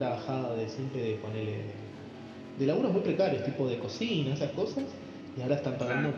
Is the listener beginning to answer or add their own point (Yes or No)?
No